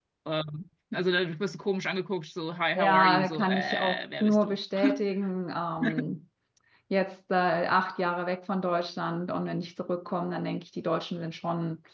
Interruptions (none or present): present